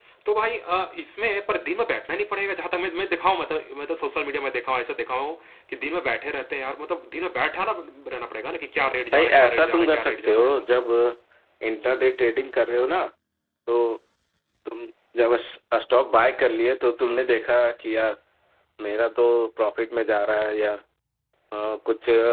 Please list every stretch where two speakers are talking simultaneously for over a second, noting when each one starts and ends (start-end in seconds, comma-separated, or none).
9.1-10.7